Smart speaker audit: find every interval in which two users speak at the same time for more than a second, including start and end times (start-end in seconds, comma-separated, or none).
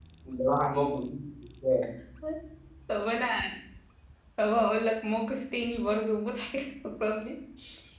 none